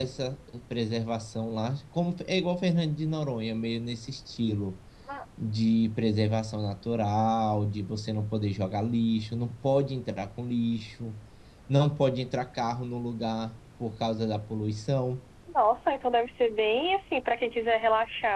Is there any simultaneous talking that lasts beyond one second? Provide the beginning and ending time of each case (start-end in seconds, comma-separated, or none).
none